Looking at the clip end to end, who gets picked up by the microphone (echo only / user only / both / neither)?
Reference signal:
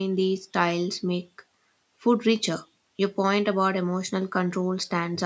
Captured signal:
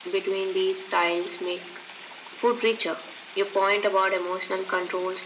echo only